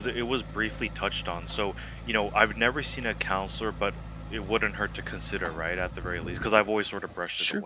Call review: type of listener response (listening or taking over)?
taking over